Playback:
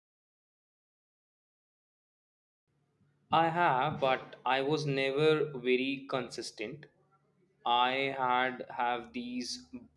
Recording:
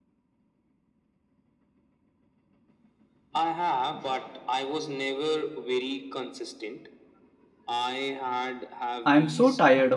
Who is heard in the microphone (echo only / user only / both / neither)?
both